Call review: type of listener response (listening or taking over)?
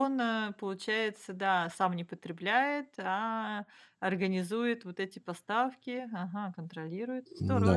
taking over